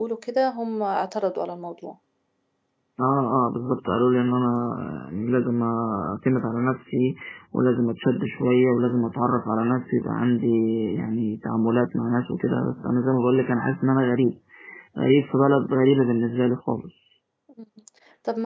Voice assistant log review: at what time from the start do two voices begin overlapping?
none

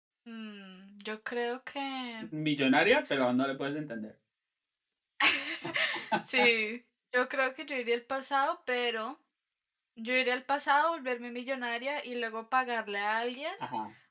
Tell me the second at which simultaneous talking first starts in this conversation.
none

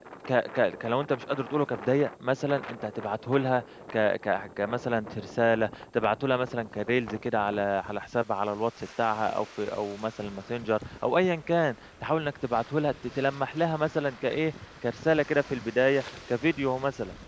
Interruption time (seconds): none

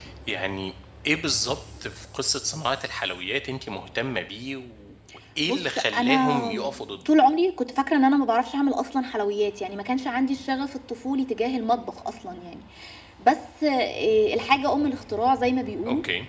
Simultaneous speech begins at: 5.5 s

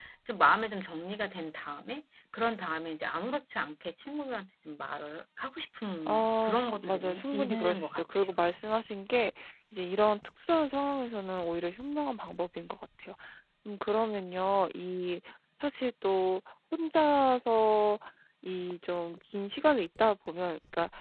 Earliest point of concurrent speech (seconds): 6.1 s

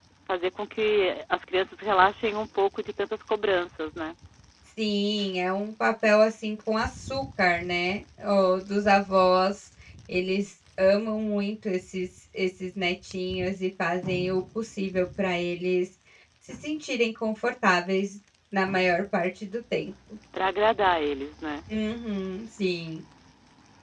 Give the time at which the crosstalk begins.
none

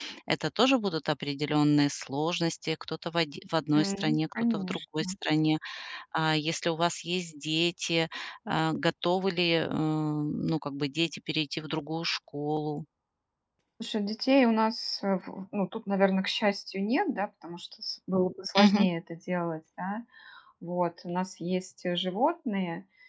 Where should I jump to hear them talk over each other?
3.7 s

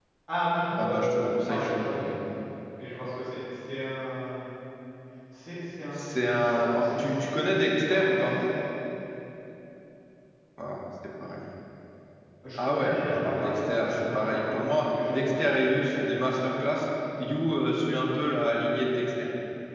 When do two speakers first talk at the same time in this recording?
0.8 s

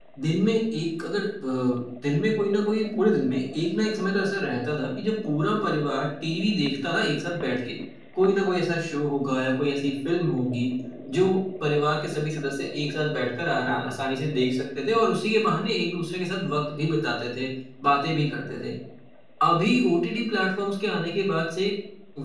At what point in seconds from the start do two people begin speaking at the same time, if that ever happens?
none

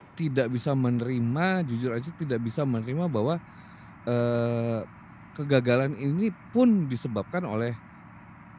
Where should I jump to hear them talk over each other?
none

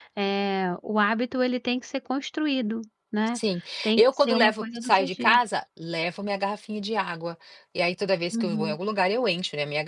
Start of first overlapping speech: 4.0 s

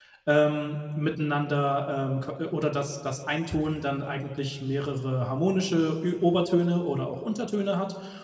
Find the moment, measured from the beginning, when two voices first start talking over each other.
none

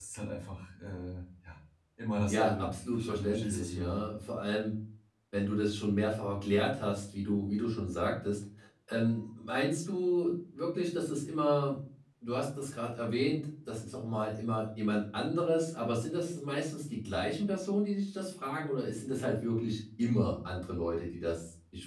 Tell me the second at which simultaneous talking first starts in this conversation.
2.3 s

